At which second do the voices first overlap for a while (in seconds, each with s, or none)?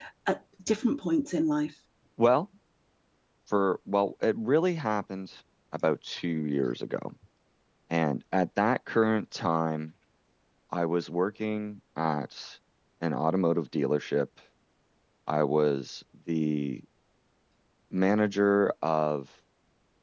none